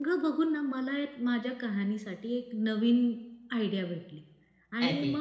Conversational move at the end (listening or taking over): listening